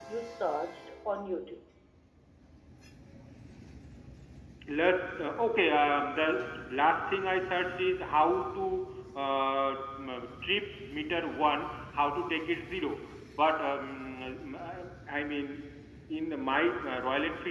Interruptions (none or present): none